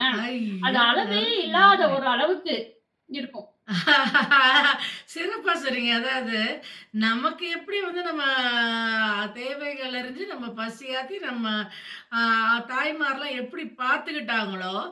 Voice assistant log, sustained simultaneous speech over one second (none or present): present